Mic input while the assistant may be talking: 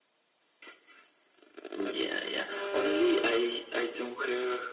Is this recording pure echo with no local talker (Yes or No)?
Yes